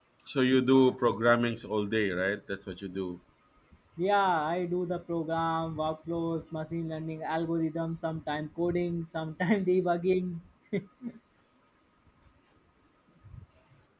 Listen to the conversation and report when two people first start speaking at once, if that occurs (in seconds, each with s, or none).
none